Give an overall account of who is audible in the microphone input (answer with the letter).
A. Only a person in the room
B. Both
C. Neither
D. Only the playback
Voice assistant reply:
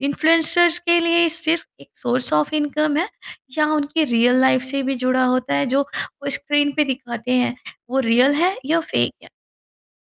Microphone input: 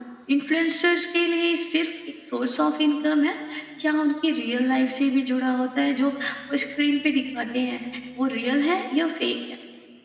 D